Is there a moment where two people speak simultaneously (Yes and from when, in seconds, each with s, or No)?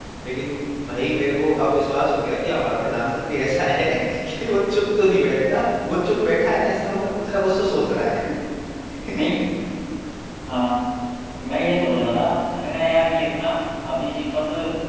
No